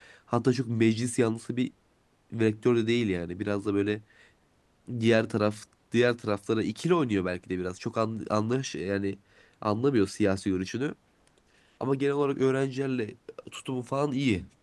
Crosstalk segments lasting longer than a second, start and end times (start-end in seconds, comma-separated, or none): none